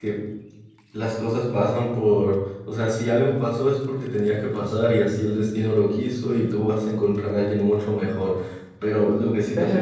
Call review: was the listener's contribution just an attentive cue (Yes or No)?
No